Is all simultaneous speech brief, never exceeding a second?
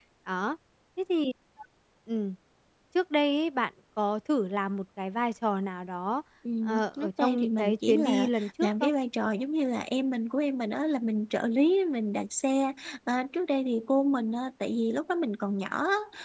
No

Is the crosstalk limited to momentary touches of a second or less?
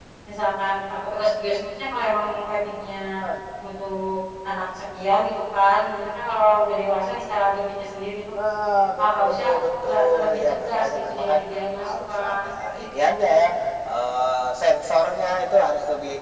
No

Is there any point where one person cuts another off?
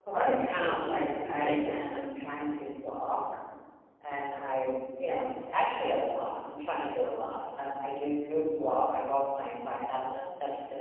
Yes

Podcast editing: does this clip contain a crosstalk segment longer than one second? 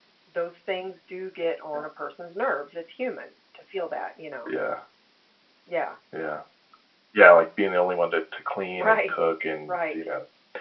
No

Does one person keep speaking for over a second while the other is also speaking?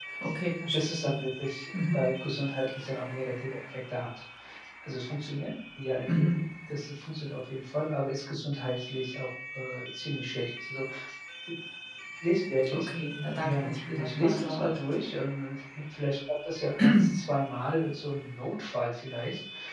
Yes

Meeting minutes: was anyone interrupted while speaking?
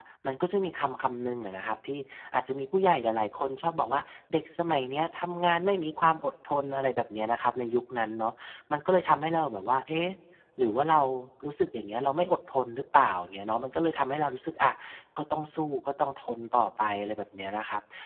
No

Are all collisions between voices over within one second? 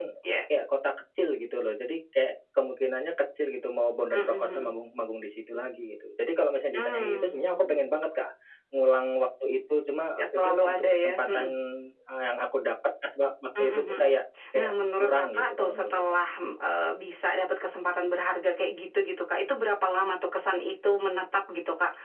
No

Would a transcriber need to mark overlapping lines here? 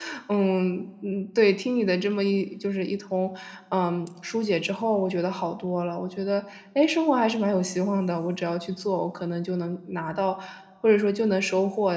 No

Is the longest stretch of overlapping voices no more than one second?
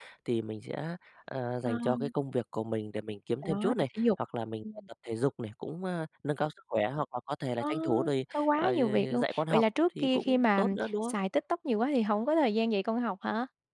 No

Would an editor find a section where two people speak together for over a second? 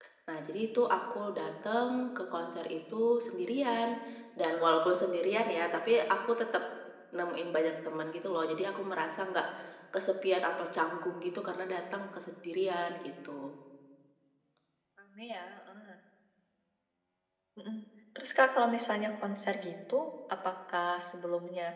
No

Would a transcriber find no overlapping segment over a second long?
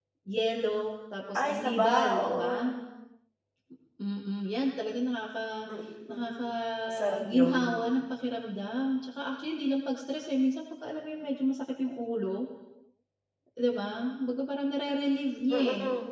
No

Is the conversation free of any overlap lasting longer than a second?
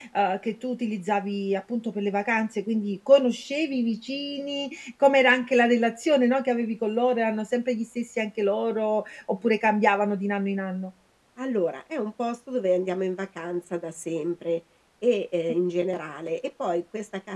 Yes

